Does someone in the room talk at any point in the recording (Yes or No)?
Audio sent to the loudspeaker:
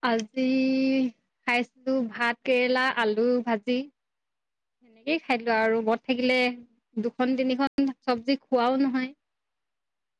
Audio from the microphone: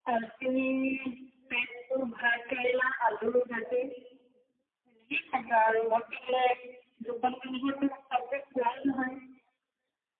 No